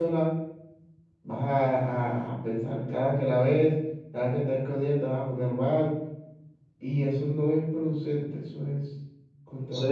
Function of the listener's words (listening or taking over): taking over